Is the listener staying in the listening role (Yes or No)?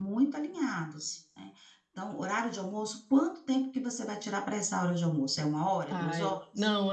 No